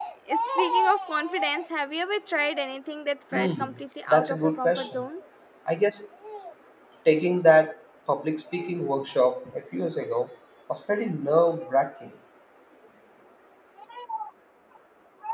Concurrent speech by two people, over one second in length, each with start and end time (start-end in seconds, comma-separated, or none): 3.3-5.1